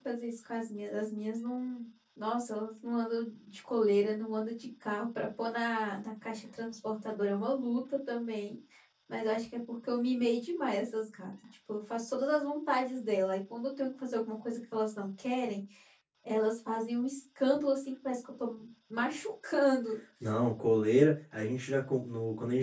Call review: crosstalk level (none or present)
none